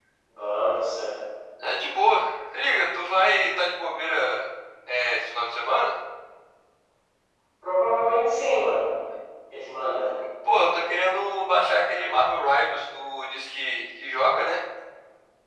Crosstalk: none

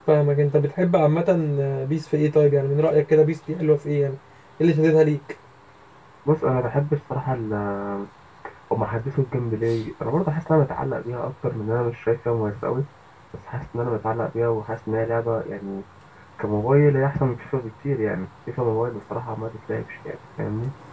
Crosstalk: none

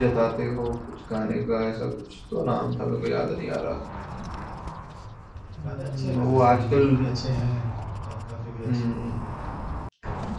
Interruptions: present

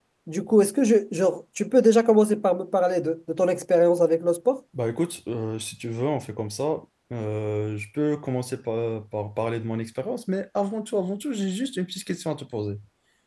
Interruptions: none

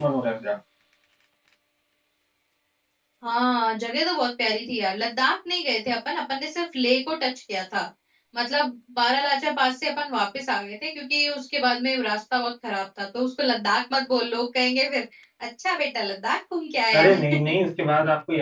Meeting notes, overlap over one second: none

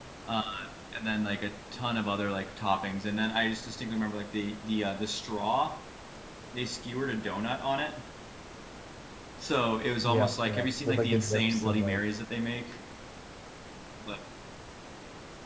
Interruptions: present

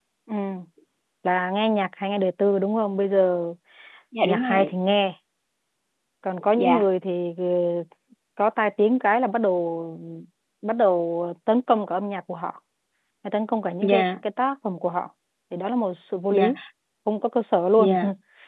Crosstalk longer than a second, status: none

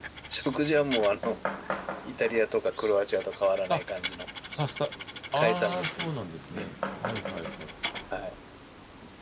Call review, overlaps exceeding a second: none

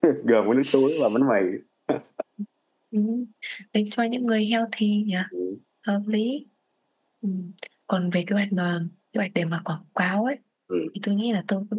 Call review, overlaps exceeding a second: none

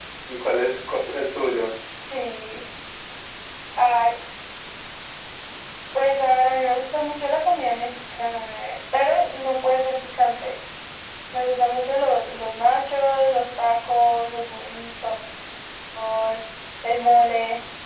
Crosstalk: none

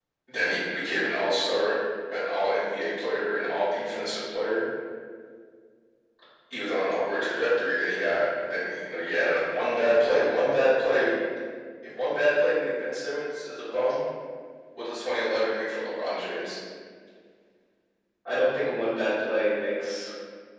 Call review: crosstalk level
none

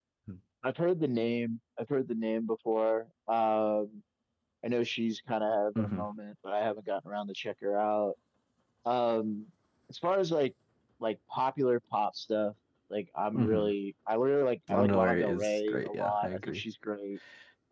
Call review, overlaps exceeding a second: present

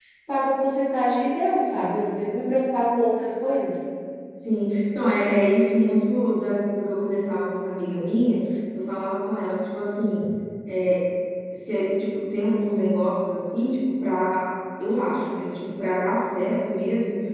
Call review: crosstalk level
none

